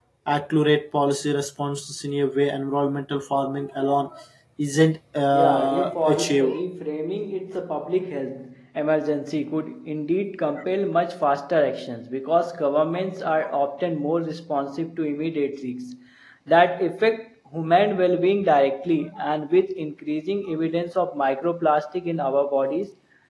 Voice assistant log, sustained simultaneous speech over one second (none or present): present